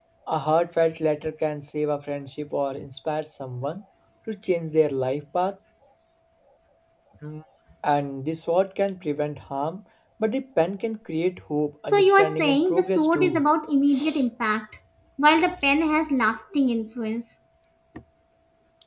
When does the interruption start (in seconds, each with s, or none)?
11.9 s